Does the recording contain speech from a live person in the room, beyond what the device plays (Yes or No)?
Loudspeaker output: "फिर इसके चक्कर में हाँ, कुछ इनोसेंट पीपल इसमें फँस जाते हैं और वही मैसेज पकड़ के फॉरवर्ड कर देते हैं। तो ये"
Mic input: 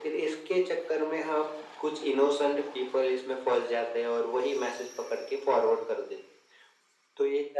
No